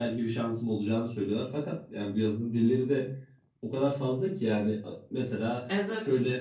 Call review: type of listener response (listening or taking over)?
listening